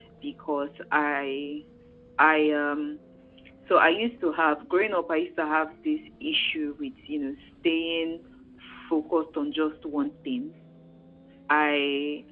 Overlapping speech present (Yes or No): No